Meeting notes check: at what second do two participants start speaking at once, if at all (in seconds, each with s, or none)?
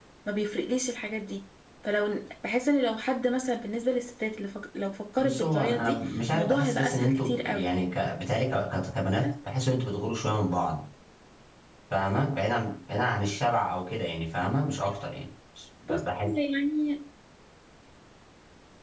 5.2 s